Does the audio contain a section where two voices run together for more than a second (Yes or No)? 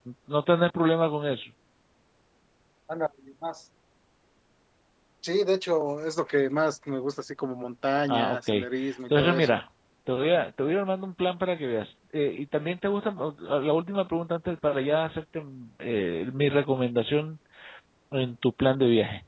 No